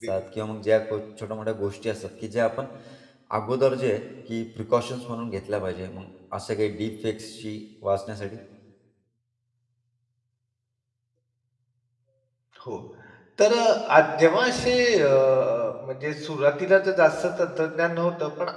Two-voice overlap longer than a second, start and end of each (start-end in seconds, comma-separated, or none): none